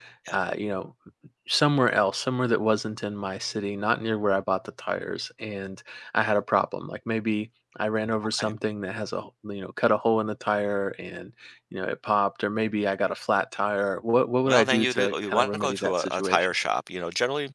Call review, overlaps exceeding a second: present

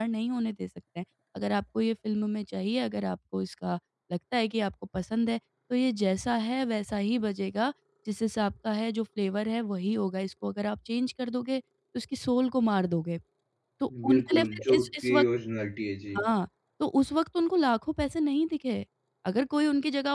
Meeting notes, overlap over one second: present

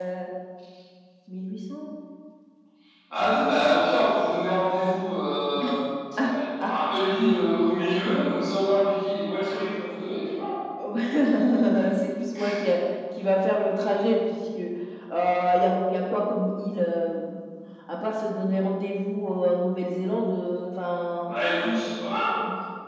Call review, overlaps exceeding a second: none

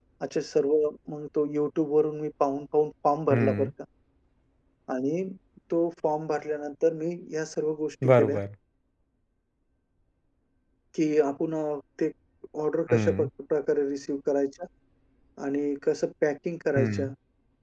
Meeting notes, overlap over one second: none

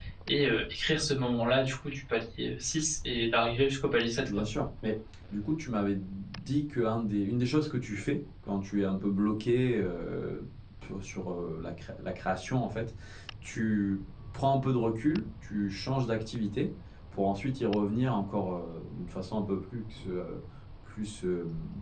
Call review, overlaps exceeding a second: none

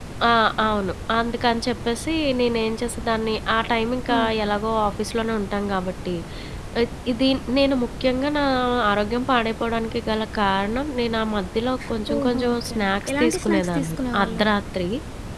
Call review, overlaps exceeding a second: present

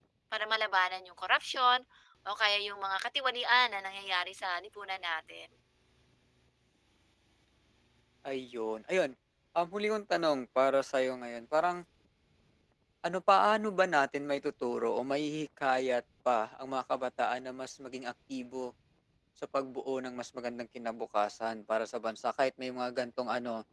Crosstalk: none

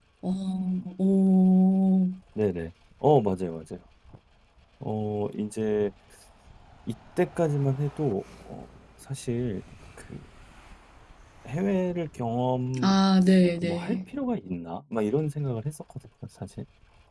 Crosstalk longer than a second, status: none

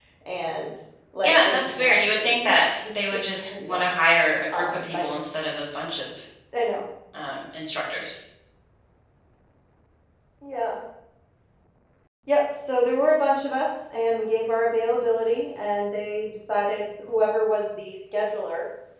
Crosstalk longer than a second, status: present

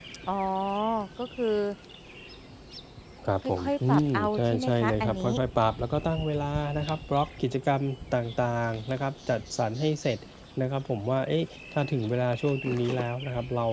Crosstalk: present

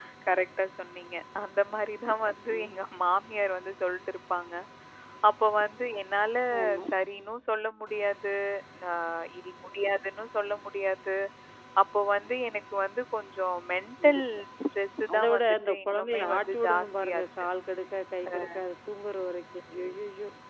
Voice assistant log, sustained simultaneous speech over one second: present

